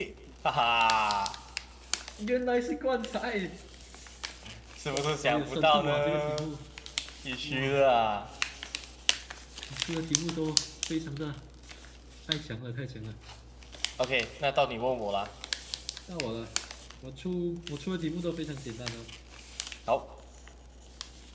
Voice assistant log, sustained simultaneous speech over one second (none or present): present